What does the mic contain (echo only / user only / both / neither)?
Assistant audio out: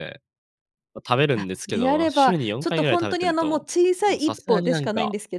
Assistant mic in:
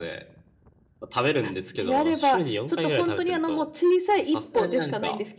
echo only